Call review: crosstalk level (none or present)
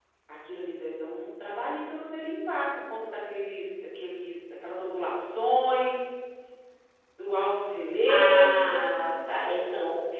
present